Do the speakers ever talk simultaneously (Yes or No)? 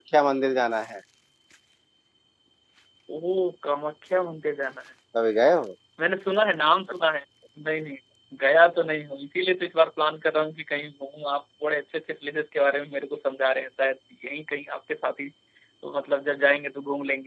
No